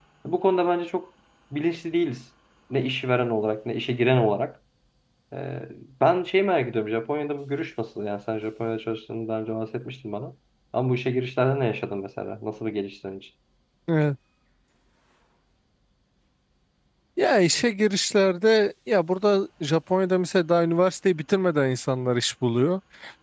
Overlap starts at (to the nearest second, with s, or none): none